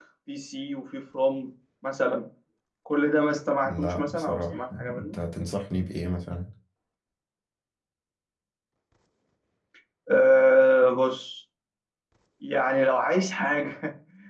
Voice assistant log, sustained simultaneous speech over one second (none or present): present